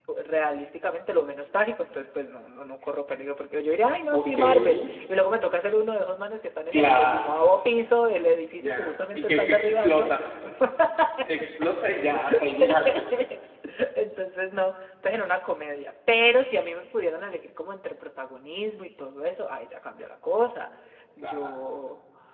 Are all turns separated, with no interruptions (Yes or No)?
No